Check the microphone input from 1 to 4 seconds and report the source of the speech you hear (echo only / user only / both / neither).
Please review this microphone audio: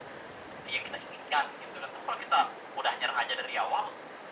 echo only